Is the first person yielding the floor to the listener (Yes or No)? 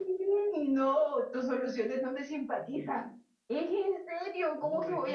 Yes